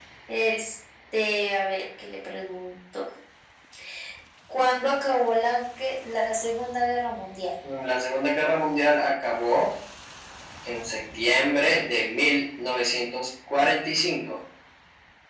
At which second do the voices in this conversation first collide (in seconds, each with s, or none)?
none